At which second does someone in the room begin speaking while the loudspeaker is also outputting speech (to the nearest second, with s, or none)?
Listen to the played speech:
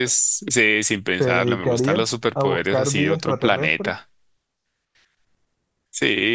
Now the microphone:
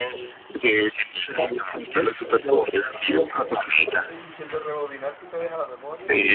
4 s